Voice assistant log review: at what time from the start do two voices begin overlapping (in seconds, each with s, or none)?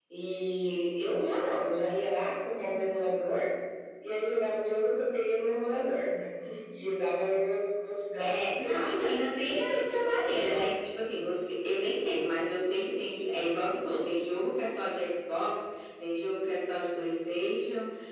8.2 s